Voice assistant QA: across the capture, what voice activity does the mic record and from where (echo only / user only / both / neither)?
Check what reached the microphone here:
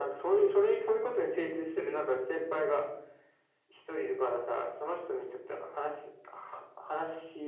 echo only